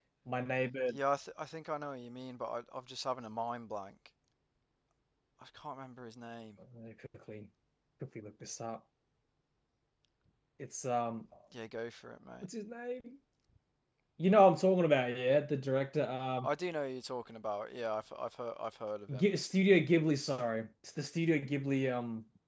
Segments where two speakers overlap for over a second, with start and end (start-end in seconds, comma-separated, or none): none